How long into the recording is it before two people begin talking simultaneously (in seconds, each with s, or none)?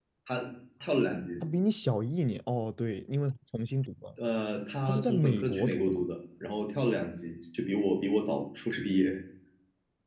4.9 s